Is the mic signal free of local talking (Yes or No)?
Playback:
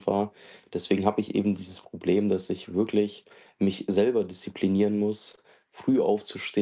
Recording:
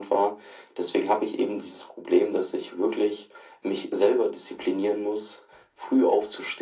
Yes